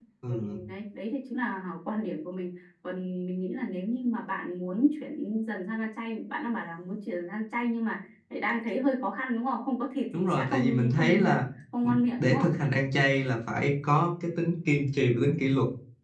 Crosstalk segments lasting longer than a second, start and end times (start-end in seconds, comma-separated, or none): 10.1-11.4